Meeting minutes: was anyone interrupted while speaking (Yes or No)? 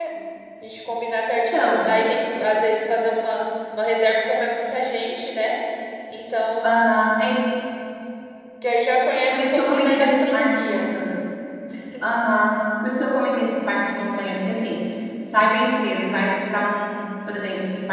Yes